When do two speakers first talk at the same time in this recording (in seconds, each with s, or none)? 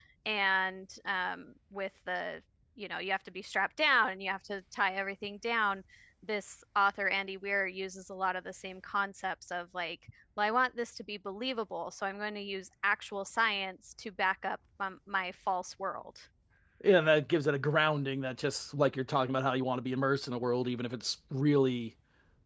none